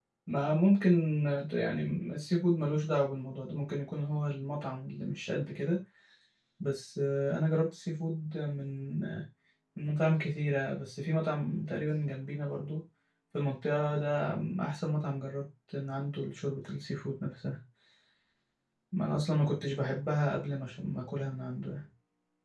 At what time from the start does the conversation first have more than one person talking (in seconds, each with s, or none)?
none